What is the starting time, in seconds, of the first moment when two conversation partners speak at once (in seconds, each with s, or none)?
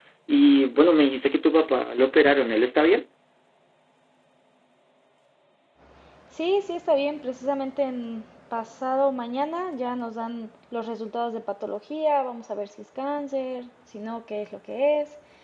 none